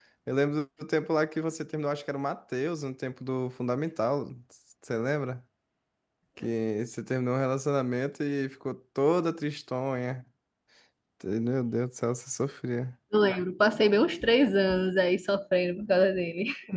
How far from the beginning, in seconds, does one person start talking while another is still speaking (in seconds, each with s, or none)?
none